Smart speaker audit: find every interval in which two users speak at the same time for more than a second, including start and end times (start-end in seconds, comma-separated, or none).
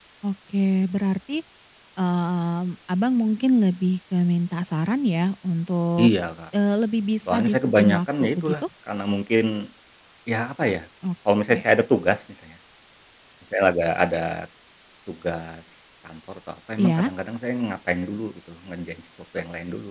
7.3-8.5